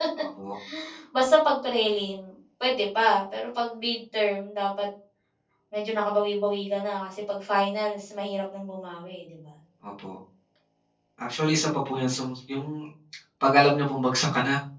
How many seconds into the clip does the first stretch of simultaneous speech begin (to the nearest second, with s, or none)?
none